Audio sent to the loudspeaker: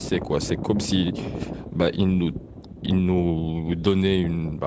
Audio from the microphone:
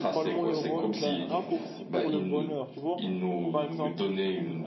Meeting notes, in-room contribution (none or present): present